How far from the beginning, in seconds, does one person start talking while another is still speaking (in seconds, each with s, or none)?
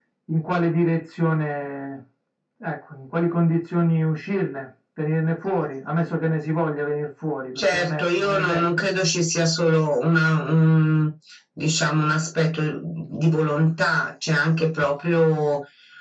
7.5 s